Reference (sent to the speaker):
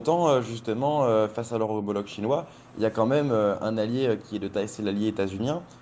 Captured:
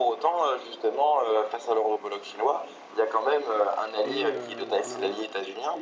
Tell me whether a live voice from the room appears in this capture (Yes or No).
Yes